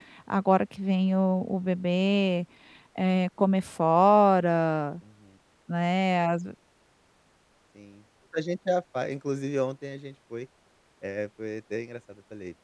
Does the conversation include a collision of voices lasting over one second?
No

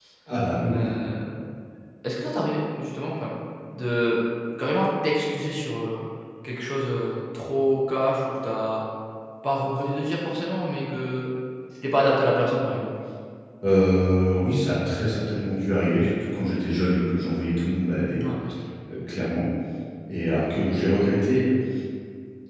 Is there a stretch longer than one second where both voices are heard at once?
No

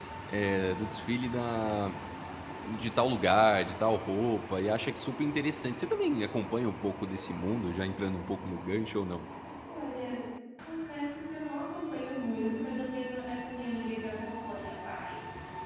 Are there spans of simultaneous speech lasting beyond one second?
No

